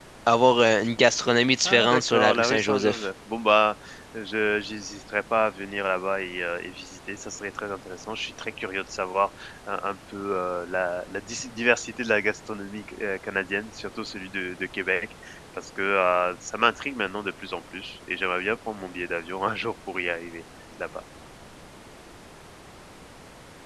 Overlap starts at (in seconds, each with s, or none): 1.6 s